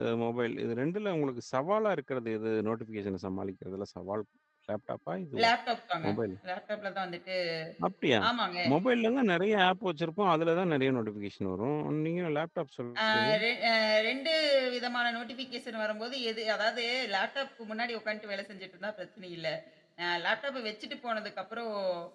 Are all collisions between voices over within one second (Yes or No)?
Yes